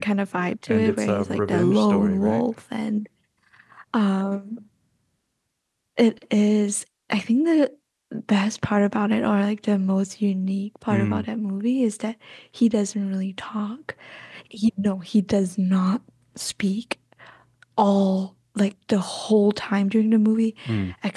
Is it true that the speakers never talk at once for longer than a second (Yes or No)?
No